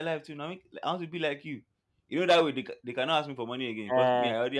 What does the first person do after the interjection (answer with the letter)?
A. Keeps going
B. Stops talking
B